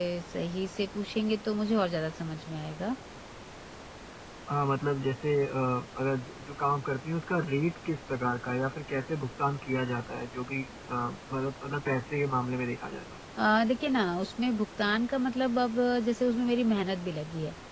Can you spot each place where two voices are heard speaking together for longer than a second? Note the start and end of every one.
none

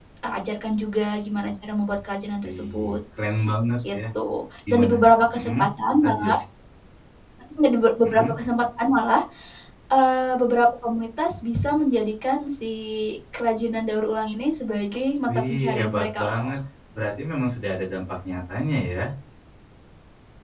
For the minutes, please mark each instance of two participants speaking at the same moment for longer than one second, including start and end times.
15.3-16.5

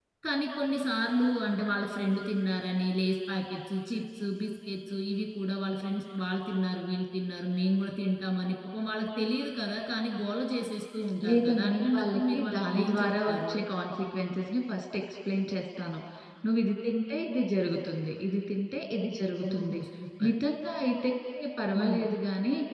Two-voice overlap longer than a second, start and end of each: 11.3-13.6

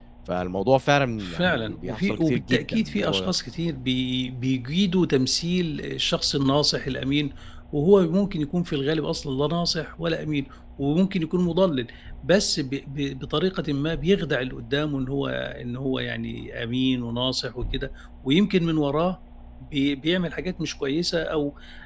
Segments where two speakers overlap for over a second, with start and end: 1.2-3.3

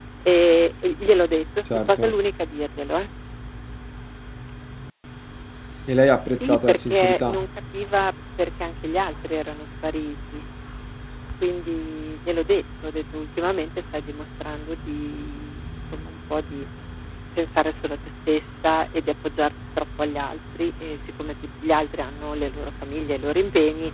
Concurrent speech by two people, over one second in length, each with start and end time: 6.3-7.5

